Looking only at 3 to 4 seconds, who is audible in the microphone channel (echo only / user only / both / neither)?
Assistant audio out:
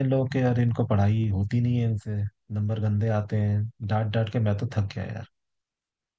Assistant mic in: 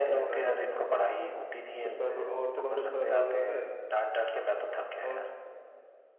both